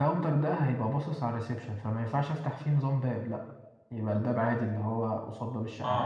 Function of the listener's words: taking over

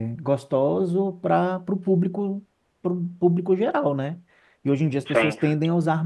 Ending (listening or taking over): listening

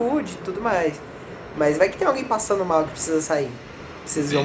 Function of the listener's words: taking over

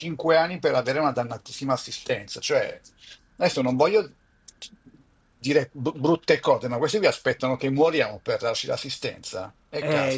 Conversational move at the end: taking over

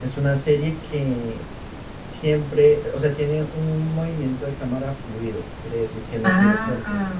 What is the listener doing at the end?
taking over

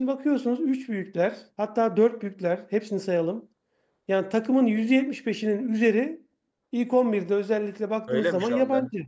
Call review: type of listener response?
taking over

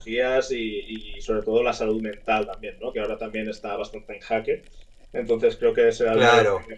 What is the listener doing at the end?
listening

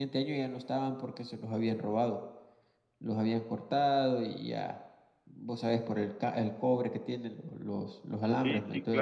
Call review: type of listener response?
taking over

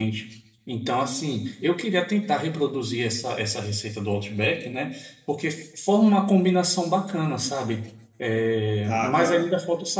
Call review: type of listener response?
listening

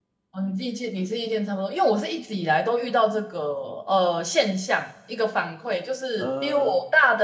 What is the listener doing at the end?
listening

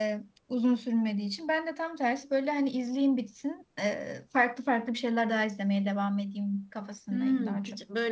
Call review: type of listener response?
taking over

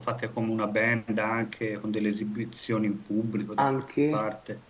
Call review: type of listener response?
taking over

